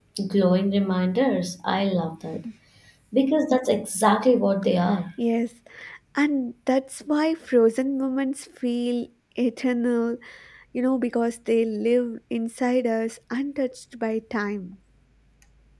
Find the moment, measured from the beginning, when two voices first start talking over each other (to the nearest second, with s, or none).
none